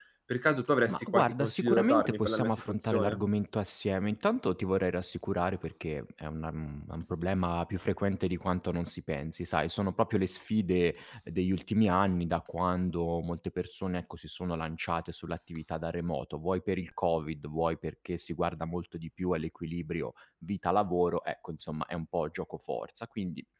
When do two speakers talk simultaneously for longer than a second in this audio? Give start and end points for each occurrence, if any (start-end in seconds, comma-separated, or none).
0.9-3.2